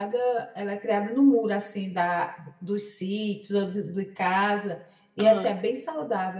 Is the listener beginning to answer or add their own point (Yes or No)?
No